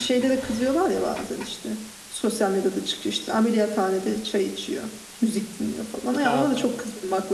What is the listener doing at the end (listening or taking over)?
listening